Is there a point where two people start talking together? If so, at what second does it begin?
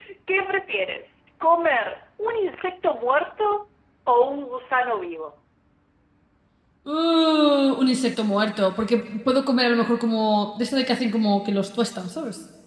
none

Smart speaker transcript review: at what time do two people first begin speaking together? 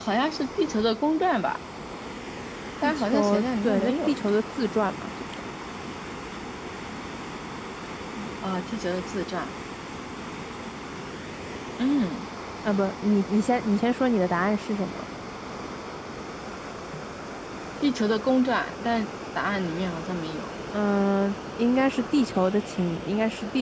3 s

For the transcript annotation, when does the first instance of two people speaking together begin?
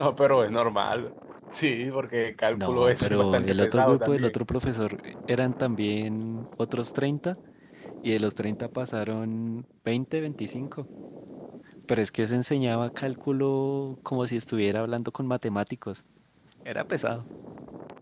3 s

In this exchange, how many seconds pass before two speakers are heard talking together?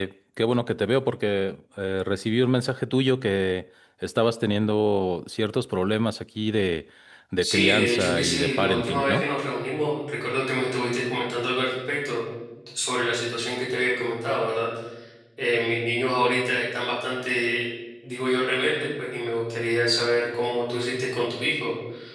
7 s

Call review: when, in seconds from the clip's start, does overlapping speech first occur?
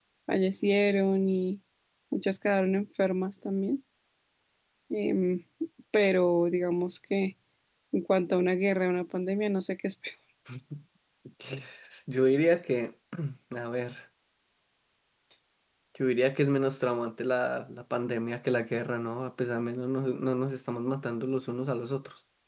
none

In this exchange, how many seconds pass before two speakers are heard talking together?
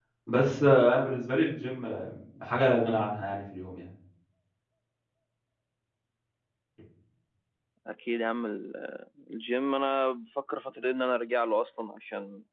none

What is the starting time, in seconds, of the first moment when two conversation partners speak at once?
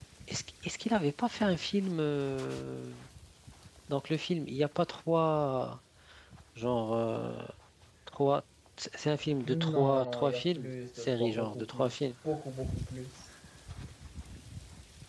9 s

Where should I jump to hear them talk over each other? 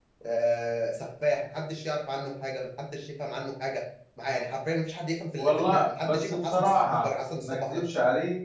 5 s

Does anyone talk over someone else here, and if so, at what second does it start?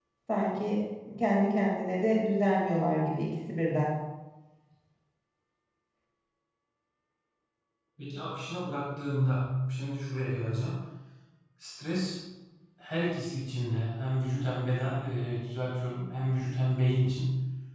none

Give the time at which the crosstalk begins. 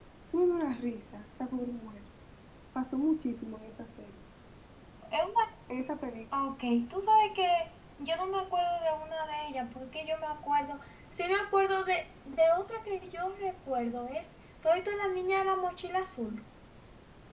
none

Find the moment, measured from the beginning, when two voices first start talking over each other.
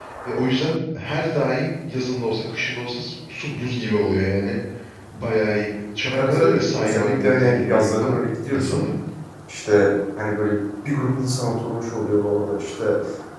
6 s

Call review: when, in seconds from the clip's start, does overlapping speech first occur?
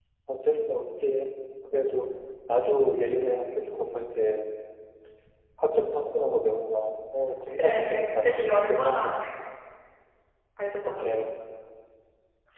8 s

